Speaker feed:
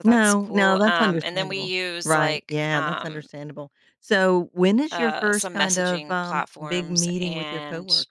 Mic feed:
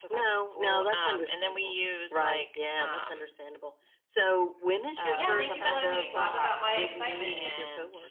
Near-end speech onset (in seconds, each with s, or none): 5.1 s